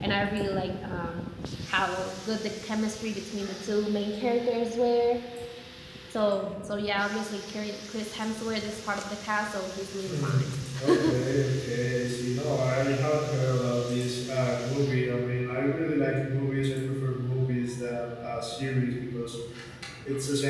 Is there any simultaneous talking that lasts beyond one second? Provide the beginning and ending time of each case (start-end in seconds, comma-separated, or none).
none